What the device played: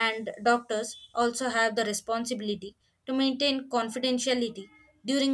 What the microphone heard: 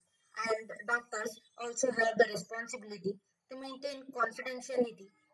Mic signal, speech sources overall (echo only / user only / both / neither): echo only